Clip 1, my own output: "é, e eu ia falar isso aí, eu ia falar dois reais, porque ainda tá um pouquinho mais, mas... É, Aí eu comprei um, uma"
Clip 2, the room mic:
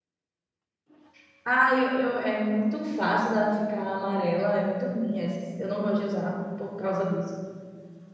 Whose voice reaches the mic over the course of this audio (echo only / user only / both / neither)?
user only